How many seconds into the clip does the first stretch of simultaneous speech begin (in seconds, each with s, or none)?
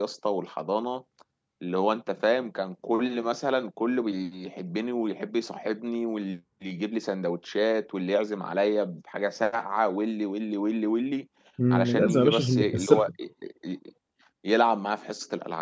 11.7 s